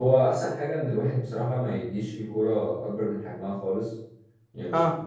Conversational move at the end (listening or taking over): listening